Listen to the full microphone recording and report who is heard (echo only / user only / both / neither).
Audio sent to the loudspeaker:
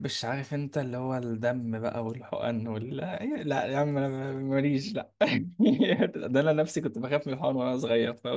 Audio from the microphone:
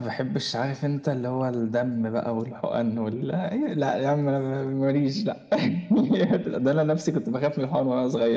echo only